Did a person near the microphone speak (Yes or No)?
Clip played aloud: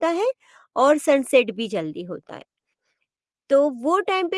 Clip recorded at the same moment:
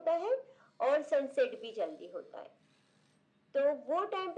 No